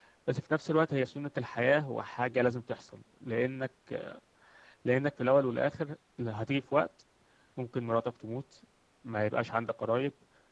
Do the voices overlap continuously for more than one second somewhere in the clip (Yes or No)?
No